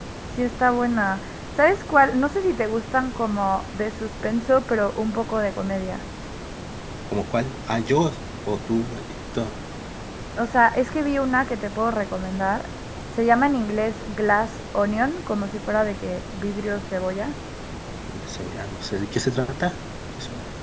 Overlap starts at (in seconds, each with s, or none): none